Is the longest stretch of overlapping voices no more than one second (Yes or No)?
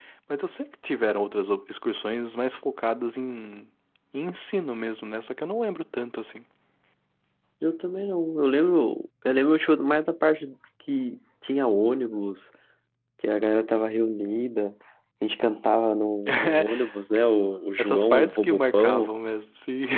No